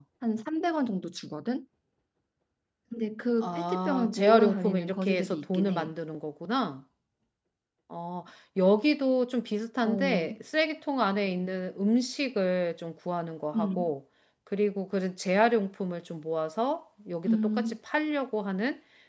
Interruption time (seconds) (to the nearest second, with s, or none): 3 s